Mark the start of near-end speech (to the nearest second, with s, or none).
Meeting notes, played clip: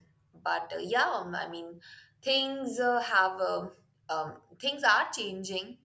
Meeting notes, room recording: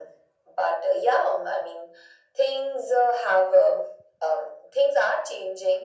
none